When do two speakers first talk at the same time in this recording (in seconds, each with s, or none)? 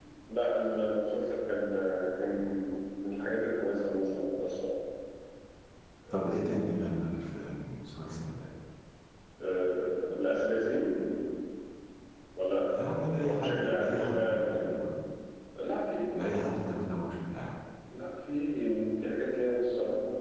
13.2 s